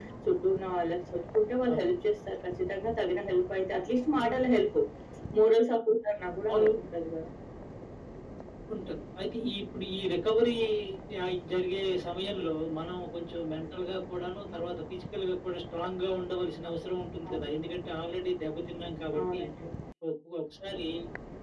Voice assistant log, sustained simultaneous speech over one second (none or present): none